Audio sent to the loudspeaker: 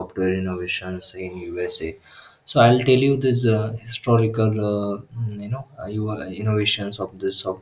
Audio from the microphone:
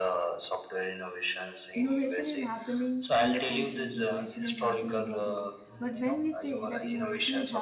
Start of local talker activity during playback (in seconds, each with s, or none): 1.8 s